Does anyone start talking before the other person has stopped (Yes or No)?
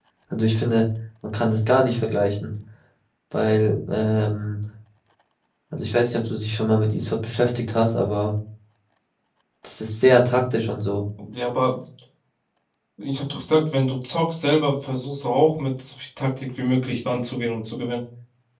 No